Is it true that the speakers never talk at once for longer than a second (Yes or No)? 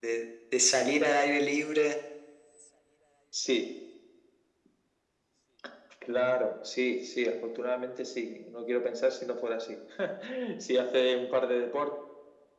Yes